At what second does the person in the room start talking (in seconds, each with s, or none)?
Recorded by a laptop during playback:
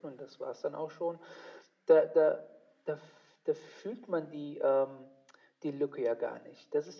none